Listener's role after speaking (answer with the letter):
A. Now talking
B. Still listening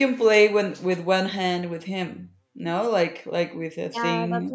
A